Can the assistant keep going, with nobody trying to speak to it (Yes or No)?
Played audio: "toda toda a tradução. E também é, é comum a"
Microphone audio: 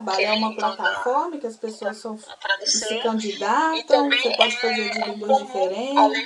No